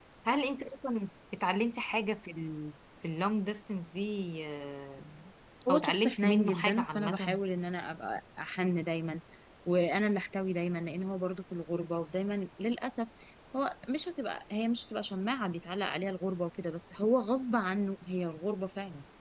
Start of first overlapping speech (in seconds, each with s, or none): 5.7 s